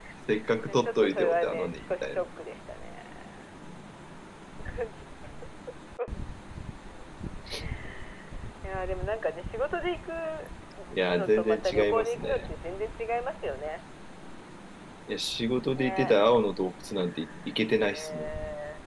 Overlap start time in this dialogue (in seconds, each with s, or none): 0.7 s